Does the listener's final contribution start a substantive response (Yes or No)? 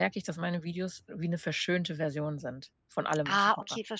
Yes